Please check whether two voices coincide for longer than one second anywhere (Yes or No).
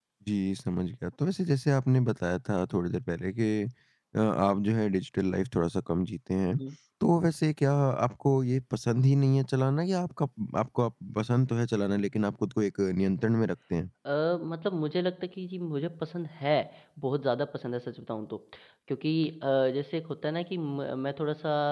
No